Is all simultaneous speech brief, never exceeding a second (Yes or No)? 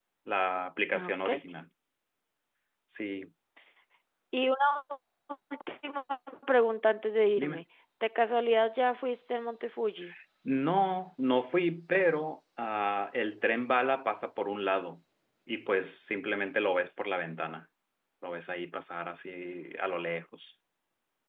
Yes